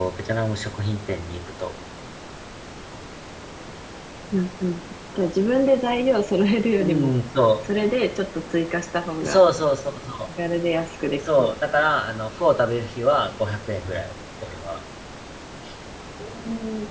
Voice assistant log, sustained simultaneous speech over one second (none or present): none